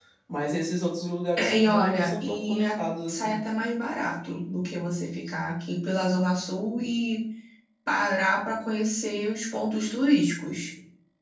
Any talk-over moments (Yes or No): Yes